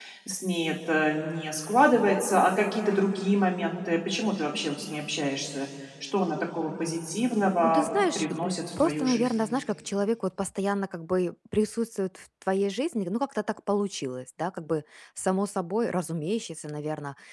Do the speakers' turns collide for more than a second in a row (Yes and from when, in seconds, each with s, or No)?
Yes, from 7.6 s